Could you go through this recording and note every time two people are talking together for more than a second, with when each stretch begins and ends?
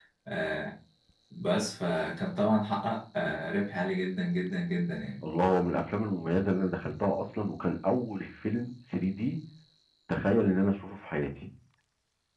none

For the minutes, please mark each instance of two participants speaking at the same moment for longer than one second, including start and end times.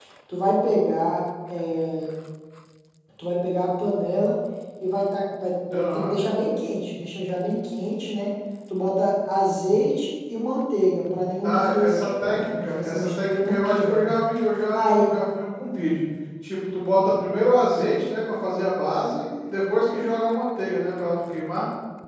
11.4-14.0

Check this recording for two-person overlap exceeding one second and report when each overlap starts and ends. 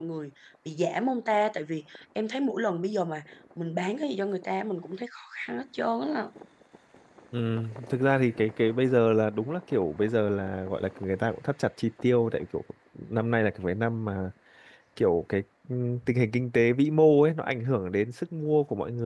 none

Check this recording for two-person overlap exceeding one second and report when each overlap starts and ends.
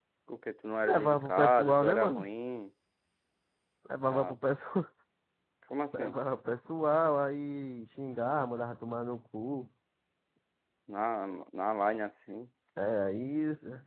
0.8-2.2

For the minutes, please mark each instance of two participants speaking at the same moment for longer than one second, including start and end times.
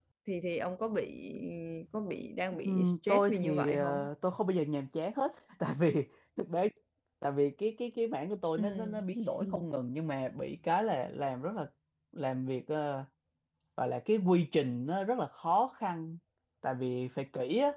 2.6-4.1

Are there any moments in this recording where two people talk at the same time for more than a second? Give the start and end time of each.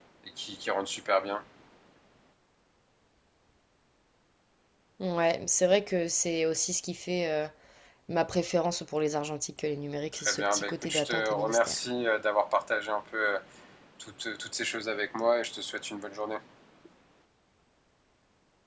10.1-11.8

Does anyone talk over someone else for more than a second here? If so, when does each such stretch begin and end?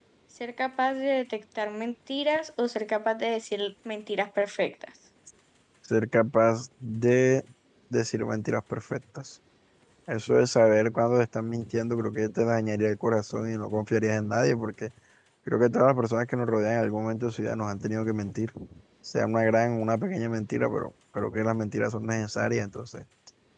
none

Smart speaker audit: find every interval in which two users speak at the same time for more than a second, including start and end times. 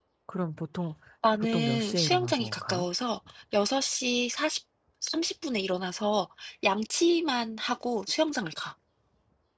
1.4-2.9

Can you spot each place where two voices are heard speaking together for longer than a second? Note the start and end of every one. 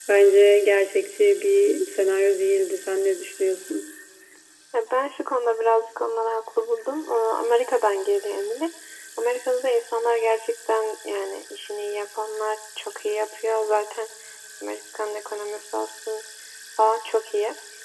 none

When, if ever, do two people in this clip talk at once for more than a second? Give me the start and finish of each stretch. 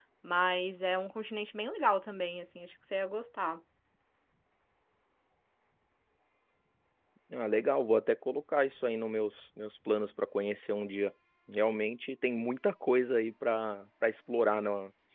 none

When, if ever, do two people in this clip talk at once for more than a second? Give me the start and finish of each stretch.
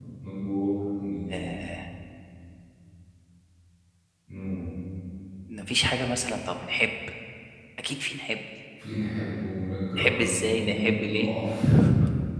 10.0-11.3

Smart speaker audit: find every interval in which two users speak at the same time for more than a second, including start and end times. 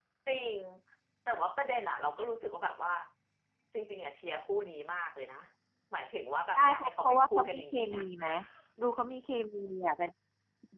6.5-8.0

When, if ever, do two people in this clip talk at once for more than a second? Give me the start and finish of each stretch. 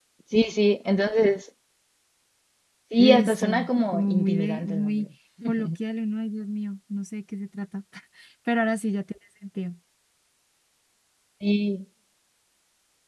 3.0-5.1

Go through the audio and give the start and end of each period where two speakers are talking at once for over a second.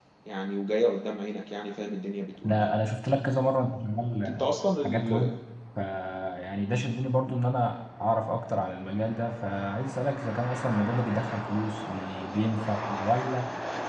none

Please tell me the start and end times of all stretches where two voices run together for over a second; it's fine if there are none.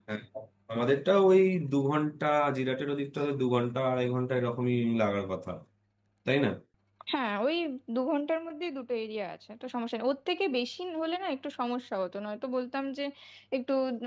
none

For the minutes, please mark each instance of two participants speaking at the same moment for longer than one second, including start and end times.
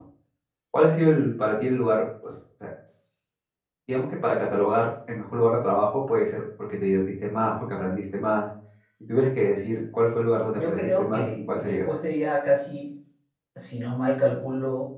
10.5-11.9

